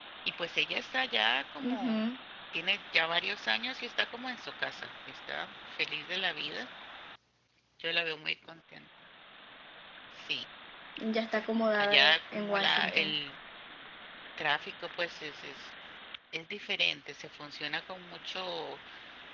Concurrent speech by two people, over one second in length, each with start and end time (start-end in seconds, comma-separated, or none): 11.7-13.1